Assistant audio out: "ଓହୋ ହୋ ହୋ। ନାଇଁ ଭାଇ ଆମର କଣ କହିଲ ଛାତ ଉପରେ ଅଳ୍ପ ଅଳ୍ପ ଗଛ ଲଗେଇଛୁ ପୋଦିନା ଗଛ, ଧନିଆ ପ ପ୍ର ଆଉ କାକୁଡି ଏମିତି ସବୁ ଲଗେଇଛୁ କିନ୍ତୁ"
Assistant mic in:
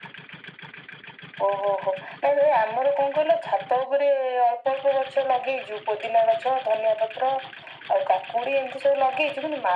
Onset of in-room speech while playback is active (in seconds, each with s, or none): none